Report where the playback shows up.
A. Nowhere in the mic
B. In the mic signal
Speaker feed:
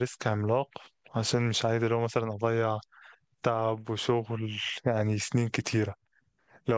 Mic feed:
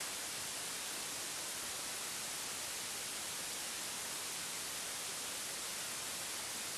A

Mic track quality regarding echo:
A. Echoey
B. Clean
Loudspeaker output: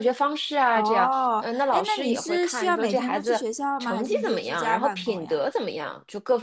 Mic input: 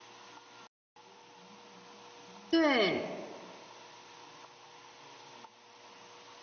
B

